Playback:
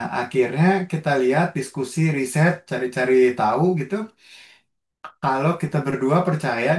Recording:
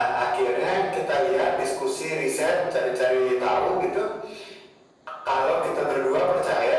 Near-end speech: none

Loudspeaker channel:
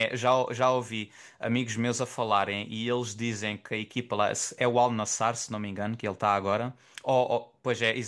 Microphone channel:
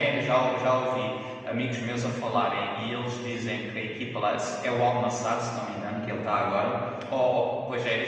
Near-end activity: none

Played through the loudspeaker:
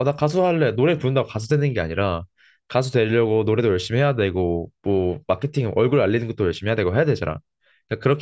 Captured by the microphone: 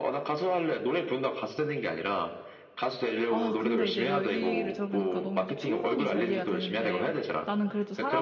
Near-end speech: present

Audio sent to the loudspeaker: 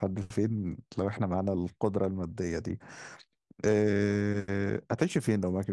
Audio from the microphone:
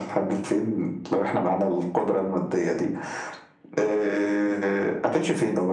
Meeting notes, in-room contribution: none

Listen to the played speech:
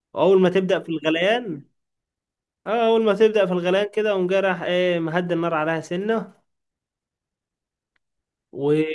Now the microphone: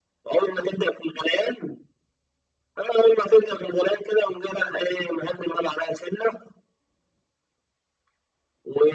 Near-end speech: none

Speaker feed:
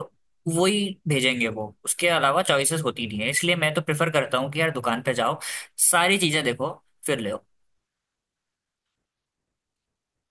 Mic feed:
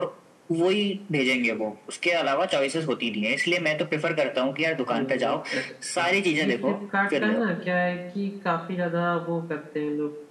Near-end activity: present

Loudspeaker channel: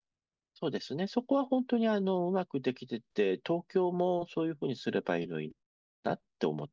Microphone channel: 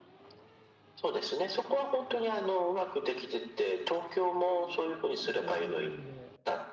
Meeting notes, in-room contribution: present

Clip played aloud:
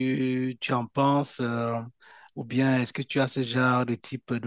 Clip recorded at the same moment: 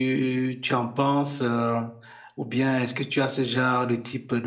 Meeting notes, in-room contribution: none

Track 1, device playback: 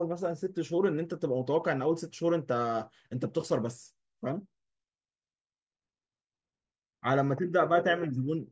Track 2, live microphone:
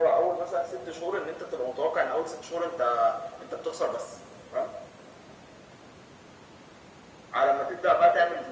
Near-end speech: none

